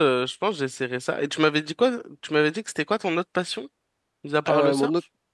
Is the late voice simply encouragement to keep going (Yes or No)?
No